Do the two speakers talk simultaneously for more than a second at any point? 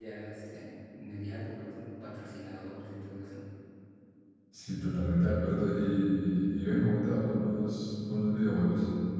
No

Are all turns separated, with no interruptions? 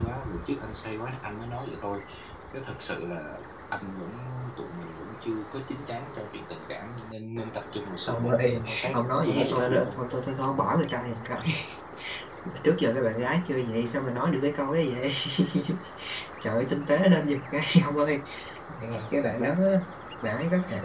No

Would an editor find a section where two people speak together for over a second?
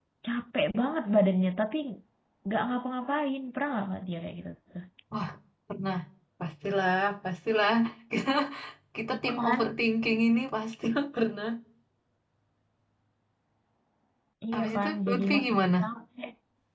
Yes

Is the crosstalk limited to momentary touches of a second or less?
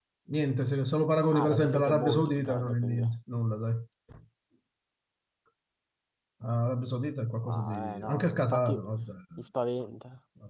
No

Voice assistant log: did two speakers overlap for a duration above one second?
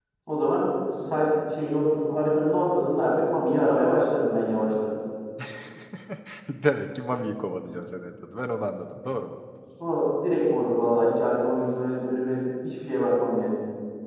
No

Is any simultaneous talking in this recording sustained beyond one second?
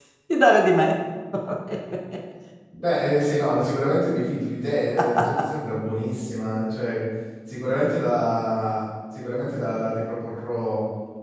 No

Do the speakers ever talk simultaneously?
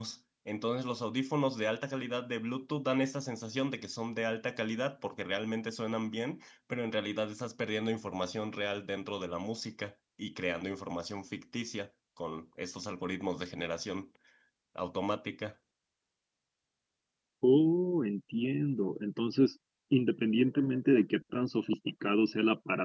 No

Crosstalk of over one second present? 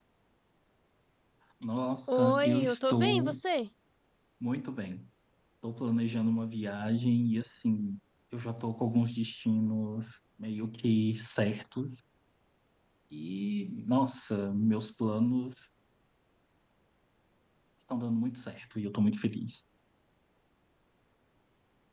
Yes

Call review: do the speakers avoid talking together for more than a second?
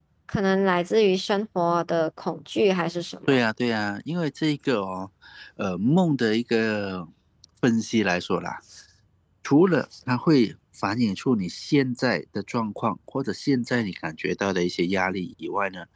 Yes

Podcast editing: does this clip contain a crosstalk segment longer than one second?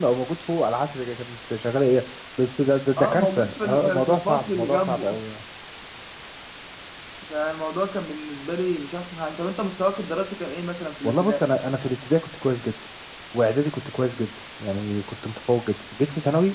Yes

